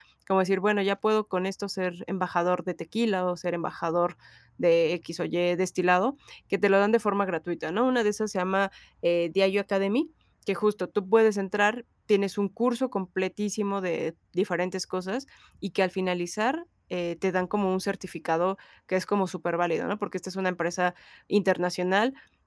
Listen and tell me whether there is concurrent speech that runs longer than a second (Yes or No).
No